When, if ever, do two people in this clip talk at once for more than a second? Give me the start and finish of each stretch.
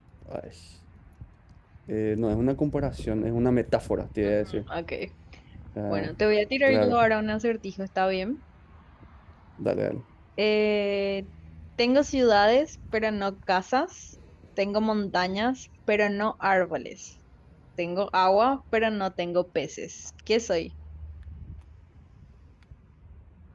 none

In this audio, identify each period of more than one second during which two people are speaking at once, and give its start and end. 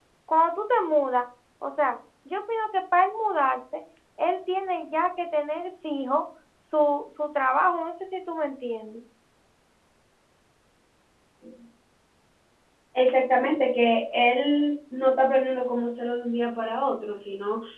none

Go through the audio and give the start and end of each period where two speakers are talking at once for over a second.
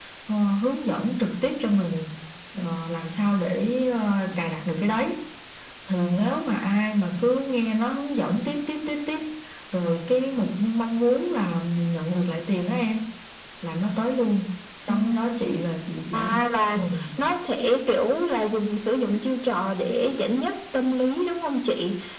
none

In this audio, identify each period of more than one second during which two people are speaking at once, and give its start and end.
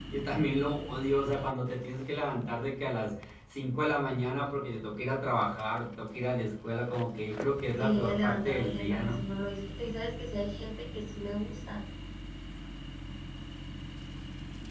7.8-9.2

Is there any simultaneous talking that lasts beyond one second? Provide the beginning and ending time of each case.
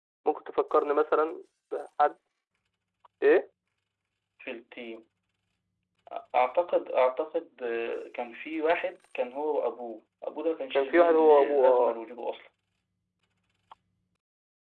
10.7-12.0

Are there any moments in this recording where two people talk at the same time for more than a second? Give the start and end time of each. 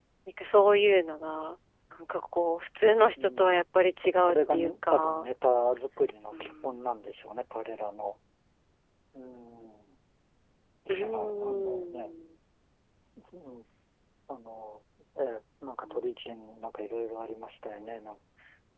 4.0-5.3, 10.9-12.2

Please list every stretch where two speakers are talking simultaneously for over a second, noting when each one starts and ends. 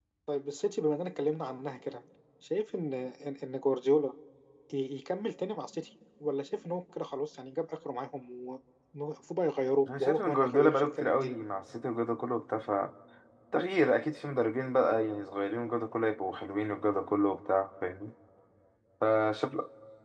10.0-11.3

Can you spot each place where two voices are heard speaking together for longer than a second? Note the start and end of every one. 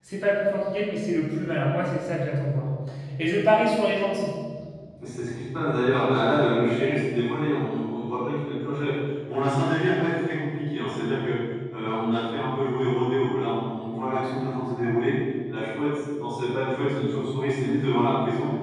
none

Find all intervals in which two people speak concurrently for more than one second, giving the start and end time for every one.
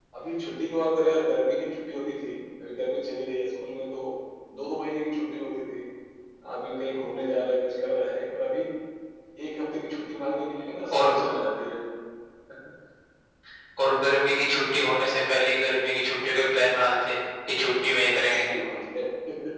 none

